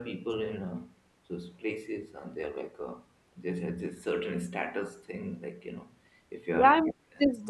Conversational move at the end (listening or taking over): taking over